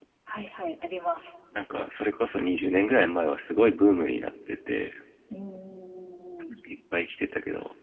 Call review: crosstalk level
none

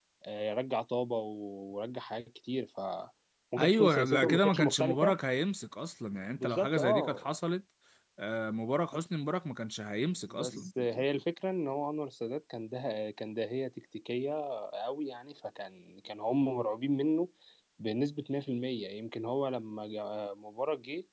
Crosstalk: present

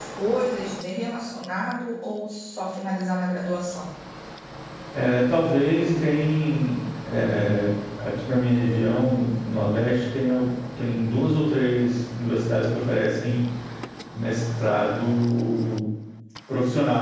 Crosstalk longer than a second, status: none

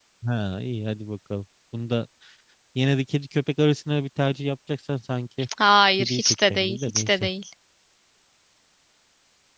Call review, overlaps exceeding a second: present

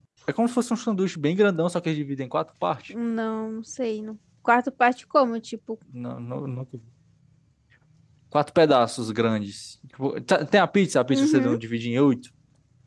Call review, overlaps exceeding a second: none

